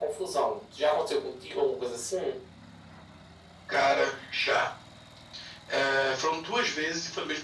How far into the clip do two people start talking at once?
none

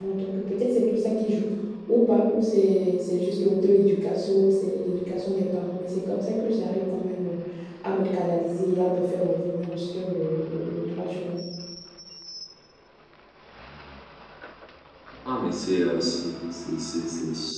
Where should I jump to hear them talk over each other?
none

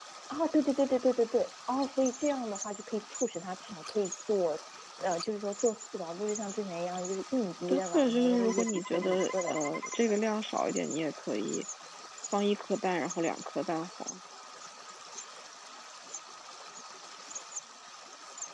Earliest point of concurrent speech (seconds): 7.7 s

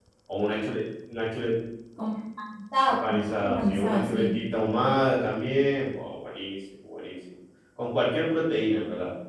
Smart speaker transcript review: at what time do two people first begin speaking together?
3.0 s

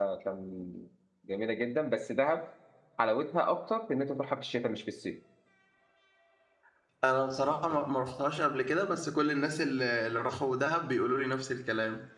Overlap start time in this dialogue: none

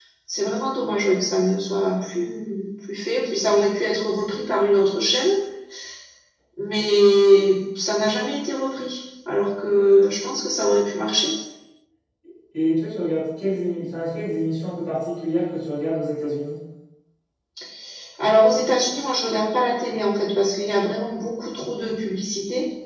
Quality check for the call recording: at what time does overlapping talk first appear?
none

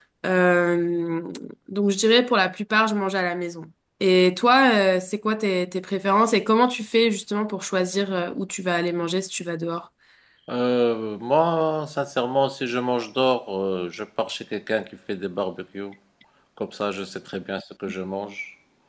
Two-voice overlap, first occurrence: none

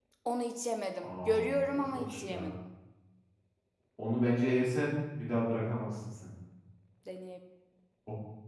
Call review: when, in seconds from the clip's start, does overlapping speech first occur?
1.0 s

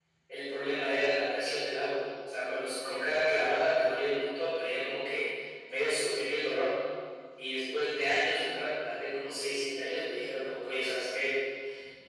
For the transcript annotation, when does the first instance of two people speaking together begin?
none

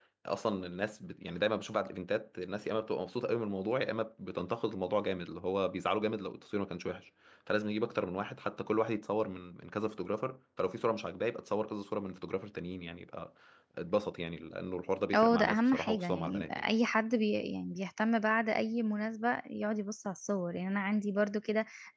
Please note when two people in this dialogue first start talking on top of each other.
15.1 s

